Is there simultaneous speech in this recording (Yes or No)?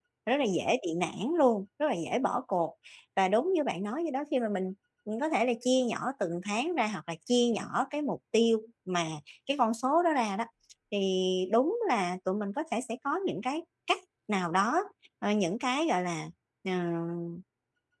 No